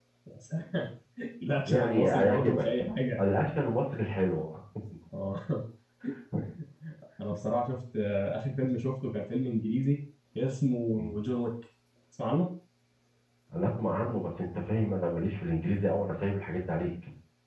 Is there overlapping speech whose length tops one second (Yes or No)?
Yes